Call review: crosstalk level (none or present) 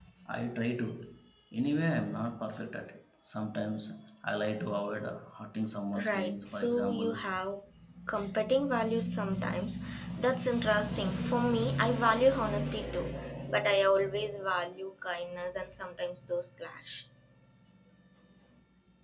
present